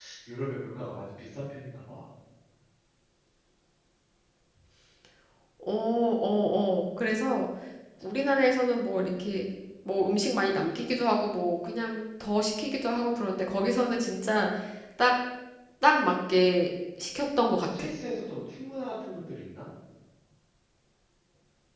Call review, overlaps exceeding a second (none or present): none